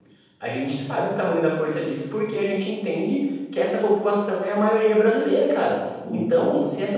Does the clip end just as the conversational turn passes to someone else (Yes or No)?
No